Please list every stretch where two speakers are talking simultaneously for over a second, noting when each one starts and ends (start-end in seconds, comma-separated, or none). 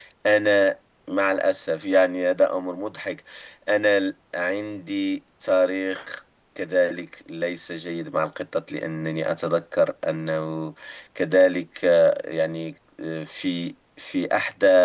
none